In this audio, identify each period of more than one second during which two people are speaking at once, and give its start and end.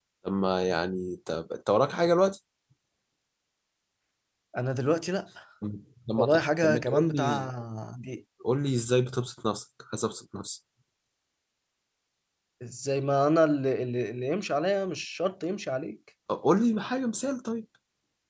6.2-7.5

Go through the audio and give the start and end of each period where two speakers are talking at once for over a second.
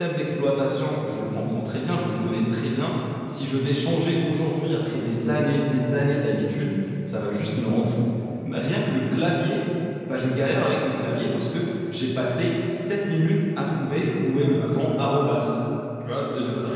14.0-15.6

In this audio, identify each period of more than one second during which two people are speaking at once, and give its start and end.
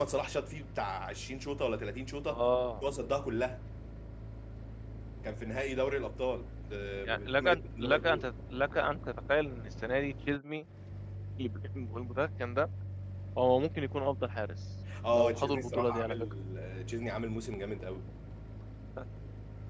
7.0-8.3, 15.1-16.3

